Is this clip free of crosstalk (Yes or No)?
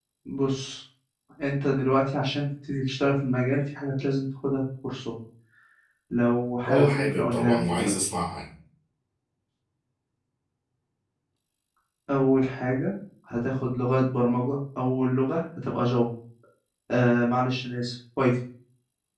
No